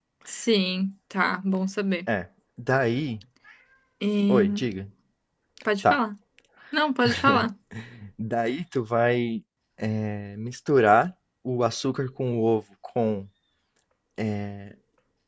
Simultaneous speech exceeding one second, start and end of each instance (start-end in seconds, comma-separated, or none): none